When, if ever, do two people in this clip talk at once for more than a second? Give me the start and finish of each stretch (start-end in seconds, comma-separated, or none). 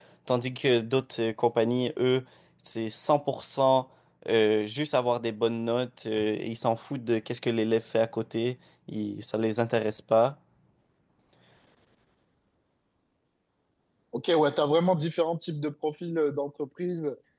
none